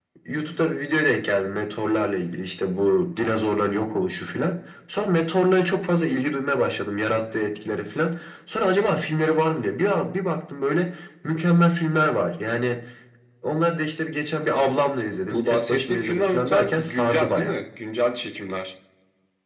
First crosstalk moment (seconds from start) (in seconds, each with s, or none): 15.3 s